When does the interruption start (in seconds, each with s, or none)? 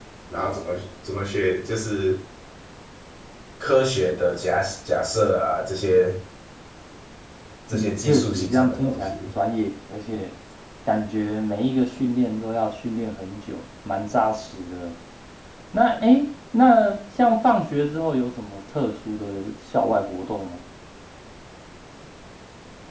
7.7 s